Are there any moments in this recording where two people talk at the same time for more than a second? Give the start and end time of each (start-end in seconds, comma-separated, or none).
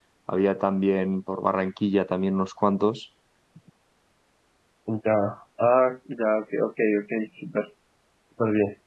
none